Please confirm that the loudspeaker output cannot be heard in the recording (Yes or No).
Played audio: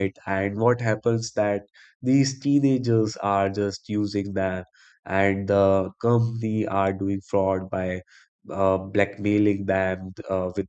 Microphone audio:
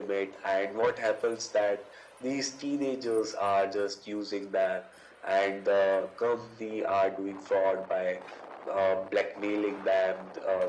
No